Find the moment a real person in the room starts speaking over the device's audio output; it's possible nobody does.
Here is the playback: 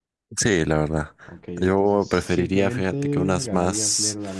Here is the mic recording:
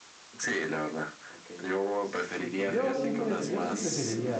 2.6 s

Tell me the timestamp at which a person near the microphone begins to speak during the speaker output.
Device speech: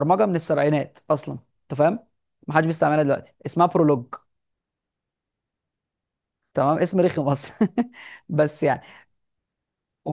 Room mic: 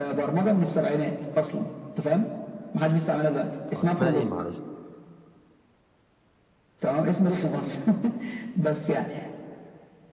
3.8 s

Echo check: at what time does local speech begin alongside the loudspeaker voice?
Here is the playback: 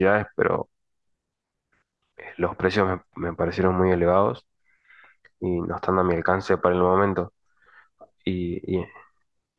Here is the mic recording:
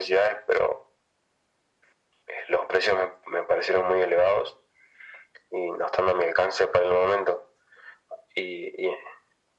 none

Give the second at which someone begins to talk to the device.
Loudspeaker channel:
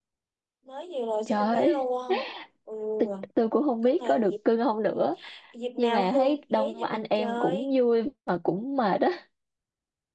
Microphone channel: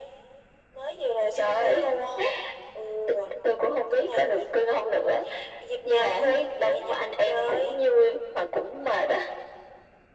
none

